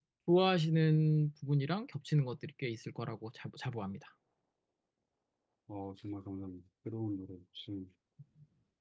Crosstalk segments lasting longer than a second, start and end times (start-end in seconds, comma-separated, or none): none